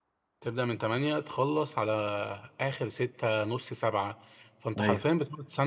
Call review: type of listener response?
listening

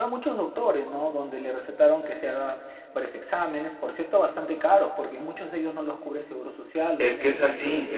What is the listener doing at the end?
taking over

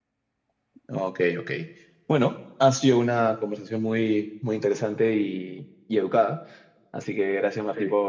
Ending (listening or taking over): listening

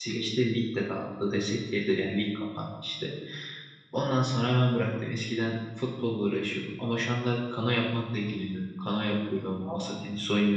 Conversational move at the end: listening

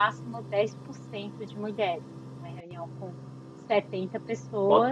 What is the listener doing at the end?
taking over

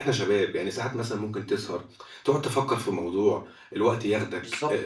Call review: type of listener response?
taking over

